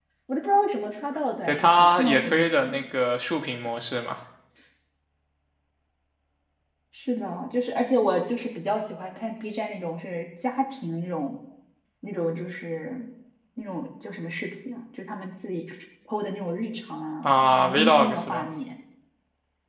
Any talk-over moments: Yes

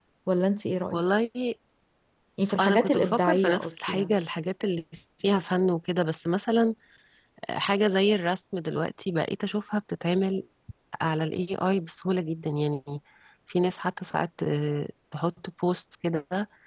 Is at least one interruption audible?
Yes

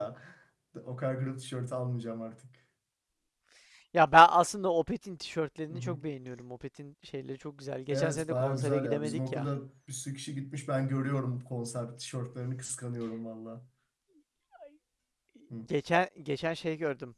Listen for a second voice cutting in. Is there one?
Yes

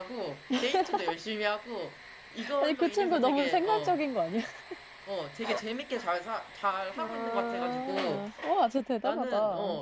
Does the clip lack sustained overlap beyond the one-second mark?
No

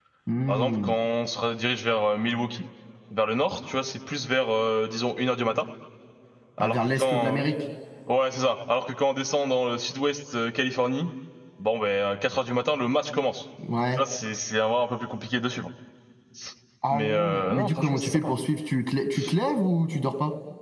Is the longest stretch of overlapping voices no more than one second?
No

